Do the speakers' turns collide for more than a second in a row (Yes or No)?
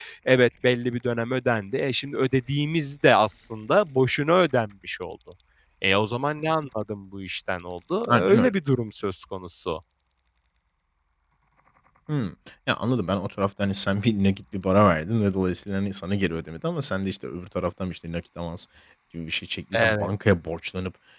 No